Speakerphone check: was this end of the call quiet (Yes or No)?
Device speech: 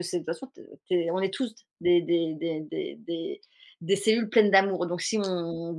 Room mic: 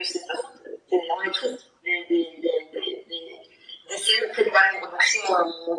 Yes